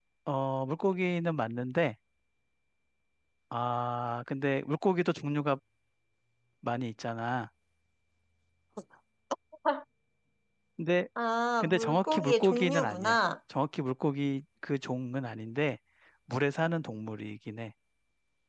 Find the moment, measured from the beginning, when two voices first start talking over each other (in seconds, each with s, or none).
11.6 s